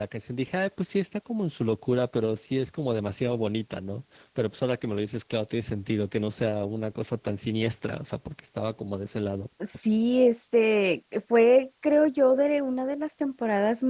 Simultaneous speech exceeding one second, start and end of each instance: none

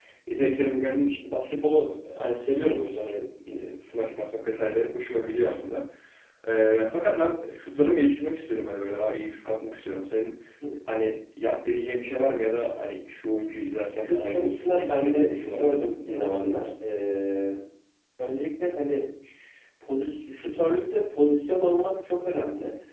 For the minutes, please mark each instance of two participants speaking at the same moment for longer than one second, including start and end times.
13.9-16.7

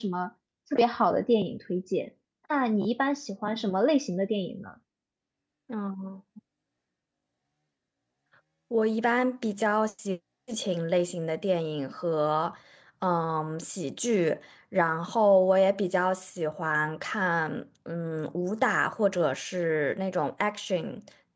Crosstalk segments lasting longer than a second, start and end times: none

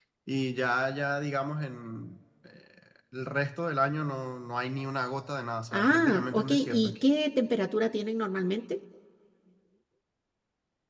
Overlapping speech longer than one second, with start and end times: 5.7-6.9

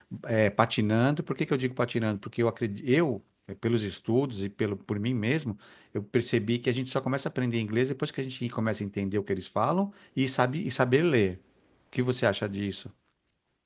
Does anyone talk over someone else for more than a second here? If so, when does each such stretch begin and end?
none

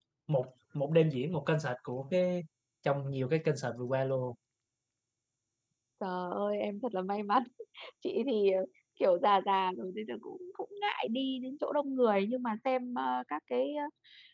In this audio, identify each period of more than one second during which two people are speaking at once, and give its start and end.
none

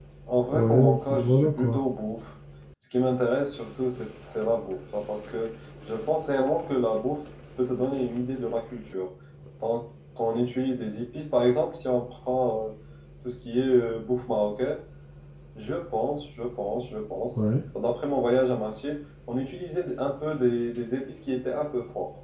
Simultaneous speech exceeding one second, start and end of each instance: 0.5-1.8

